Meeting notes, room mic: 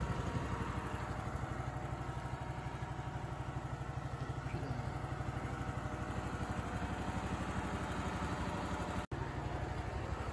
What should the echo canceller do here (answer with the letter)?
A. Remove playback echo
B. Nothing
B